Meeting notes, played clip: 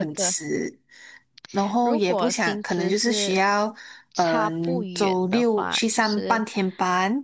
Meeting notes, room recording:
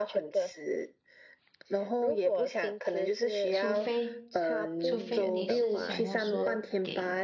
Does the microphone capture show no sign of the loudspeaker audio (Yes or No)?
No